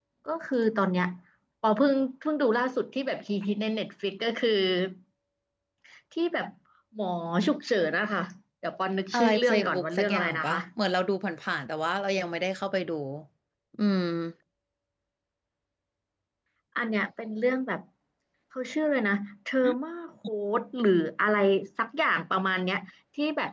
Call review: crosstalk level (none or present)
present